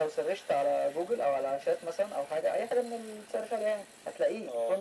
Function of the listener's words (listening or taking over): listening